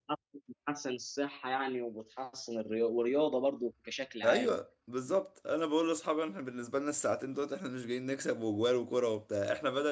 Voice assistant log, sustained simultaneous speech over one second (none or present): none